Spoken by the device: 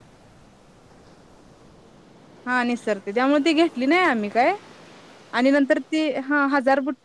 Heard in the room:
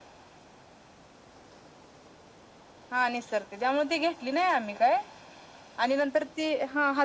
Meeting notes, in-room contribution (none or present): none